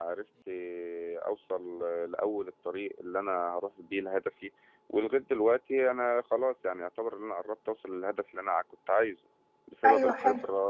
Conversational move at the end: listening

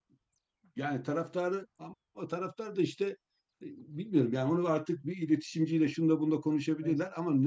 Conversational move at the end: listening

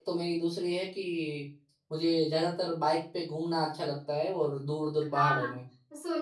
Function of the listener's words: taking over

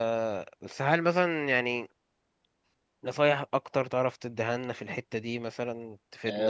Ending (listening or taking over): taking over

